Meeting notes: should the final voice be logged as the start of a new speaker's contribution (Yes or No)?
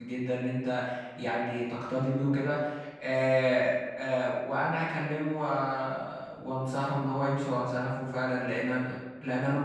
No